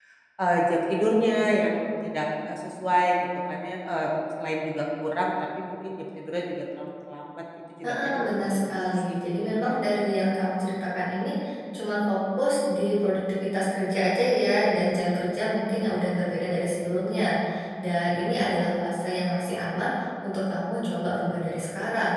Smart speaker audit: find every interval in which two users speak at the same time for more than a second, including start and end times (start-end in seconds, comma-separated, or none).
7.8-9.8